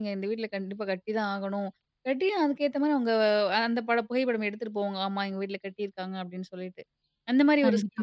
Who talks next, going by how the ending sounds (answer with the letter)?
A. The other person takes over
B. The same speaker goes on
B